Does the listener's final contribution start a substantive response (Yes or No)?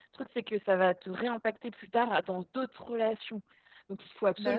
No